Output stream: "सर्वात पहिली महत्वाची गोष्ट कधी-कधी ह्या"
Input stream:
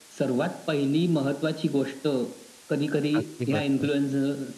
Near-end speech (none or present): present